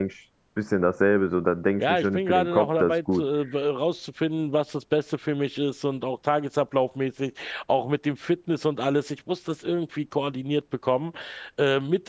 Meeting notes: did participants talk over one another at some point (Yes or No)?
Yes